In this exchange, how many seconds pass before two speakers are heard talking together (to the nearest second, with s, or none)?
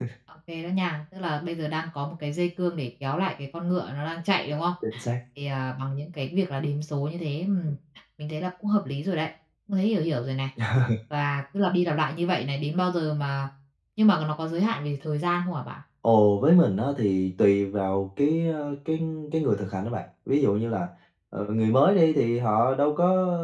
none